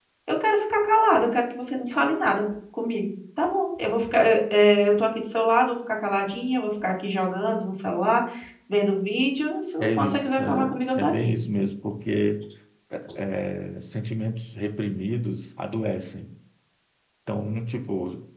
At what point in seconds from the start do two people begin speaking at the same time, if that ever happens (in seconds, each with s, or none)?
9.8 s